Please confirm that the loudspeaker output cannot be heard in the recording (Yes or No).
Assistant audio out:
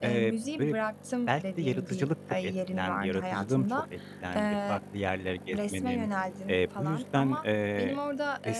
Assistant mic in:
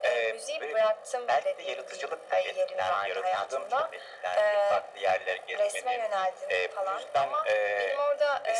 No